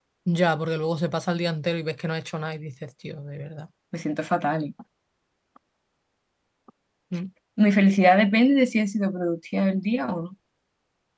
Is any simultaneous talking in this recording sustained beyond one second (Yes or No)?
No